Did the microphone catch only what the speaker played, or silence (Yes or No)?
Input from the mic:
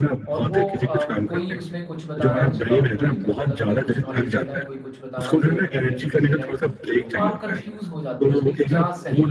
No